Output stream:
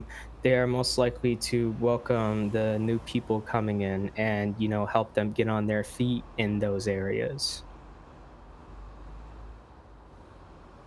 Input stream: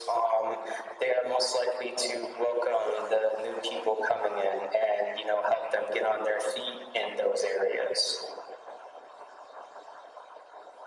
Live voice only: none

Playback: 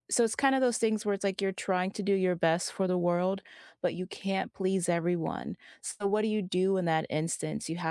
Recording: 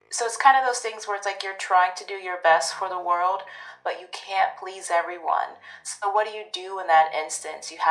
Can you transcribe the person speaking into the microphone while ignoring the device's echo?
none

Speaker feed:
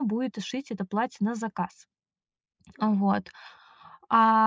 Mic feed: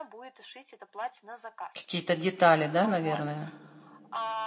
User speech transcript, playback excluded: Какие-то детали, да, наверное?

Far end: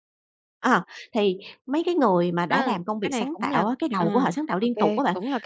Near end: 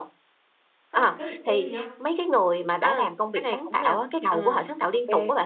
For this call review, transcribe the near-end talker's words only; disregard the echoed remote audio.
Có đặt cái mục tiêu gì không

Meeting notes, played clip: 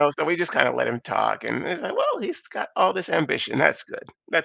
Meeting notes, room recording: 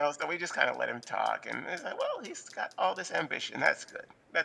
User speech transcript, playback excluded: none

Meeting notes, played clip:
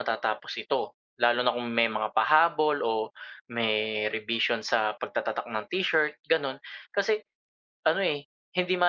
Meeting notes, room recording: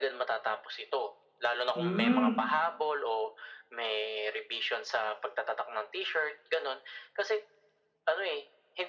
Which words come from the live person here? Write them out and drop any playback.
hmm.

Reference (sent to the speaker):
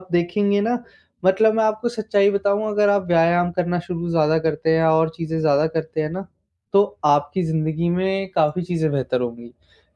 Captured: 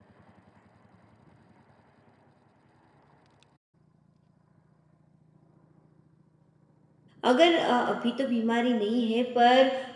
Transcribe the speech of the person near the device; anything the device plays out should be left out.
अगर अ, अभी तो बीमारी नहीं है पर

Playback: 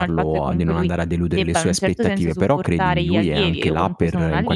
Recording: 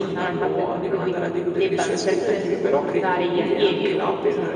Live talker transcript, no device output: none

